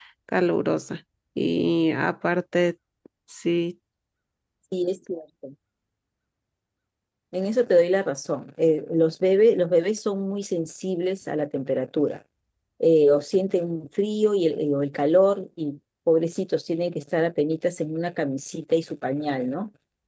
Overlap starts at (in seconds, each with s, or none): none